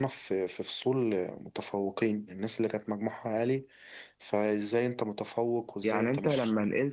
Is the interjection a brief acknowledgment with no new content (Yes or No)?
No